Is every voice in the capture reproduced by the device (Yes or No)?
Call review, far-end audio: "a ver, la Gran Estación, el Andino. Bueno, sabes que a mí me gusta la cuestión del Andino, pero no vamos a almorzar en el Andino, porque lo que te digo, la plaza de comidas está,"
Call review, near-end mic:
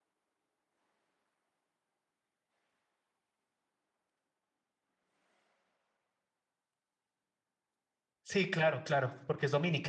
No